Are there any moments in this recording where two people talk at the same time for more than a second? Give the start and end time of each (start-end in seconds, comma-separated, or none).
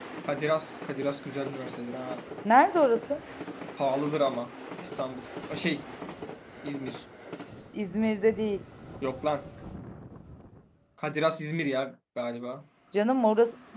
none